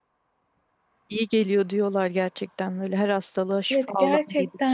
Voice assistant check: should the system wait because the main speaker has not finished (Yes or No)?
No